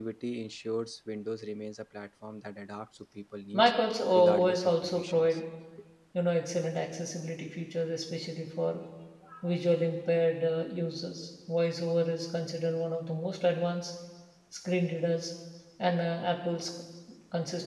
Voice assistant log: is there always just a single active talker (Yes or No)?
No